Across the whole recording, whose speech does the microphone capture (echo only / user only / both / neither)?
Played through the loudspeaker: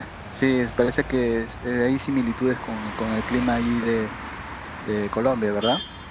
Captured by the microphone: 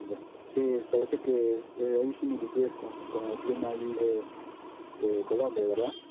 echo only